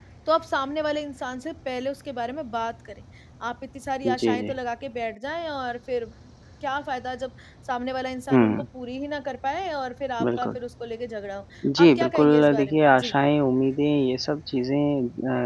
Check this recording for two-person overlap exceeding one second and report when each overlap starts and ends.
11.8-13.2

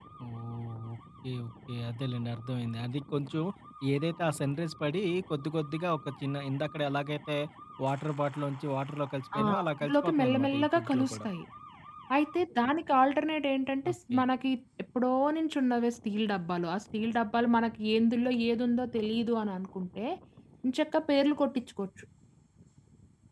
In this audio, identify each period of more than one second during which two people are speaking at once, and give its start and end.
9.4-11.3

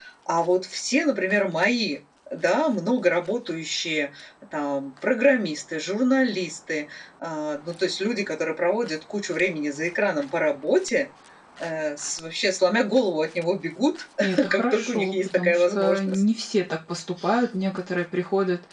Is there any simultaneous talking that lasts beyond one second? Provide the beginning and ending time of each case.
14.5-16.2

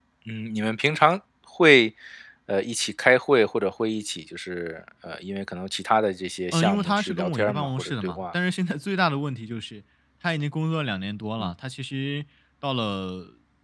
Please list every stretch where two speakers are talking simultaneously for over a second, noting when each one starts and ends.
6.5-8.3

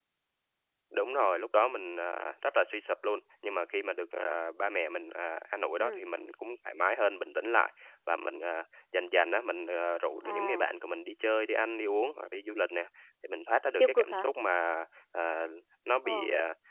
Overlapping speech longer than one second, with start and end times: none

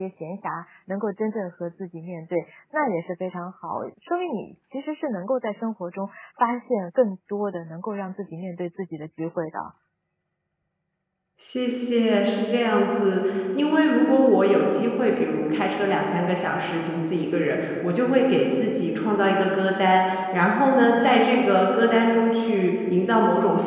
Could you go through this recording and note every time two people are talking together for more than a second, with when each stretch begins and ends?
none

